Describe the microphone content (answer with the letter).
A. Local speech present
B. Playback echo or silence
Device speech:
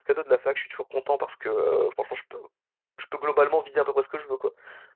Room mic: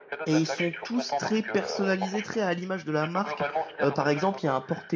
A